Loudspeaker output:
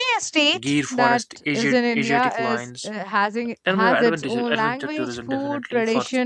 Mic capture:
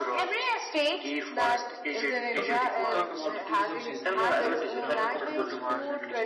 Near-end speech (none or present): present